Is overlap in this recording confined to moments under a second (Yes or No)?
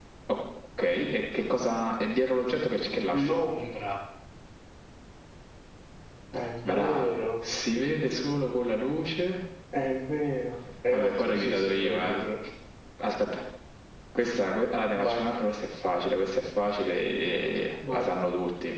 No